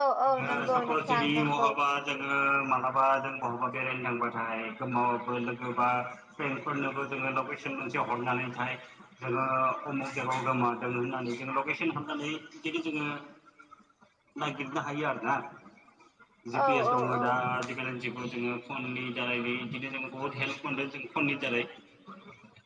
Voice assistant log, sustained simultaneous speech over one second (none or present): present